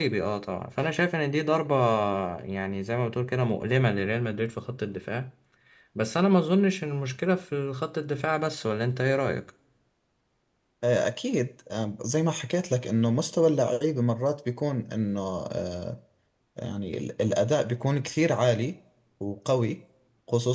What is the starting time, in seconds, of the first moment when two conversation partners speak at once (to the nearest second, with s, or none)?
none